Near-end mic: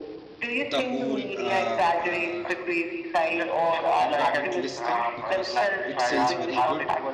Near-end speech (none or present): present